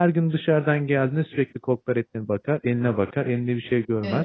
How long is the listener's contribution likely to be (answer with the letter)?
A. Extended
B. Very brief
A